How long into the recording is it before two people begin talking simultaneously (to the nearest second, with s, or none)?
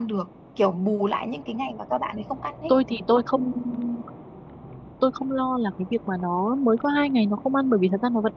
none